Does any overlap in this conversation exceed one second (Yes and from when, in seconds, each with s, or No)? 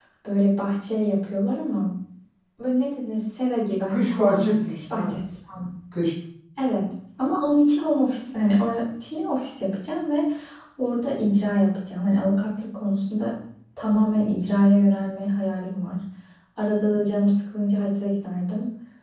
Yes, from 3.9 s